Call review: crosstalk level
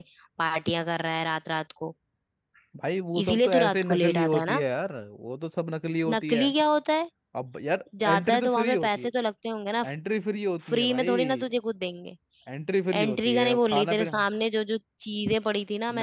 present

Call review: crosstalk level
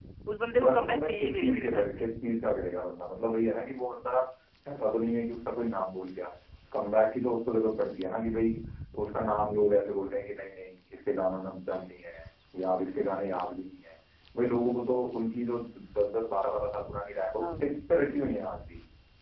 present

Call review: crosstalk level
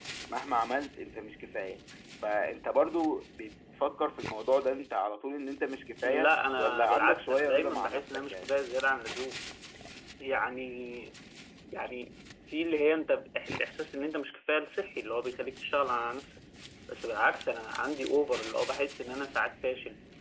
present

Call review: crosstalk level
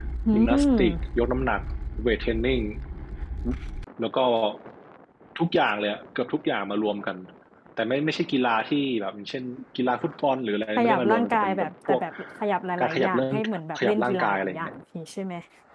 present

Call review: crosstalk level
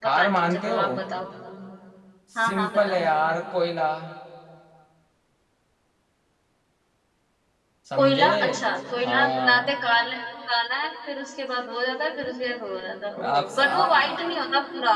present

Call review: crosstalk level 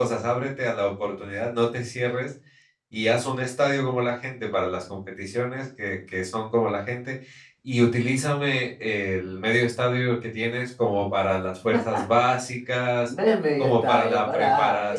present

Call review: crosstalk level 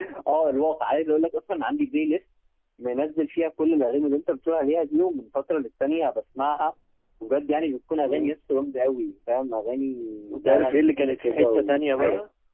present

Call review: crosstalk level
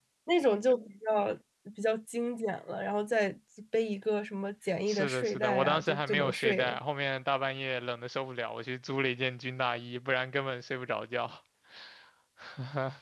present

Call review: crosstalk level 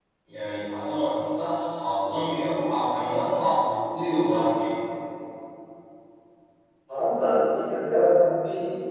none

